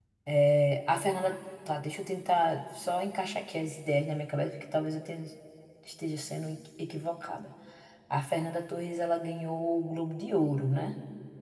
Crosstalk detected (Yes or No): No